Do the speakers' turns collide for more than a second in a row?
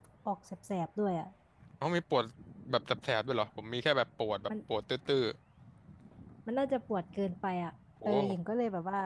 No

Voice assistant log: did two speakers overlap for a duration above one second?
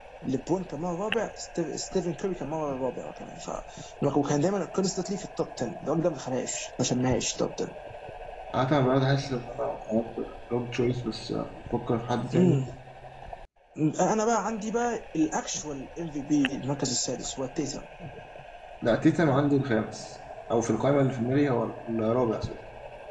No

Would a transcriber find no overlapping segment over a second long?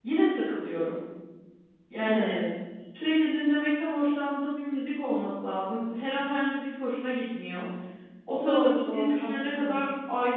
No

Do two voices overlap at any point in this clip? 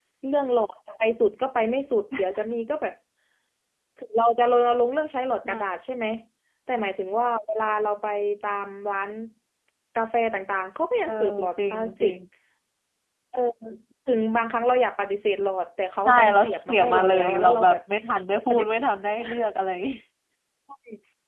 Yes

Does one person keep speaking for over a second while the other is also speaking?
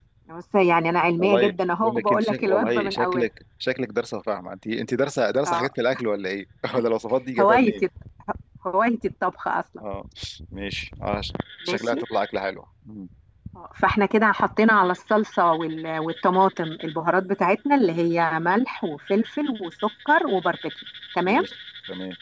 Yes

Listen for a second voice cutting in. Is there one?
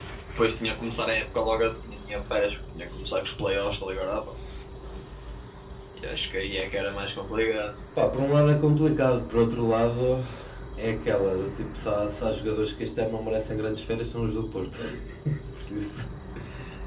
No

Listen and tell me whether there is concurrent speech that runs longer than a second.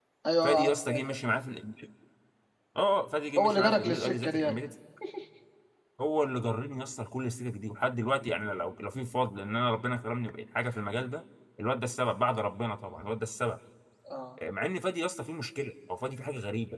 Yes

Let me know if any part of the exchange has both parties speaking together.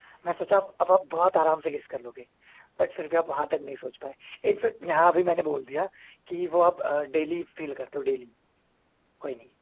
No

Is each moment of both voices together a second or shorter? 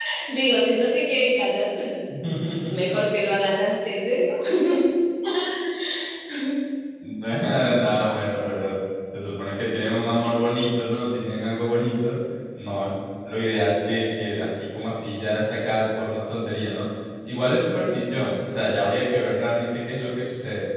Yes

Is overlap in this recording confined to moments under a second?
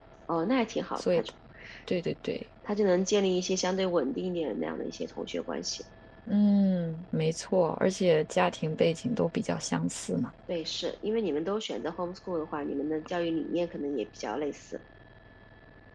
Yes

